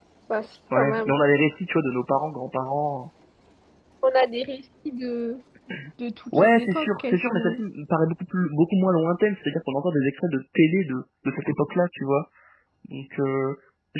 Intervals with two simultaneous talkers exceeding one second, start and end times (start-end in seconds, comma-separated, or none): 6.4-7.6